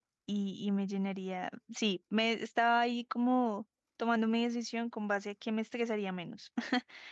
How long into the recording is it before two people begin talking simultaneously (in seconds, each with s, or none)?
none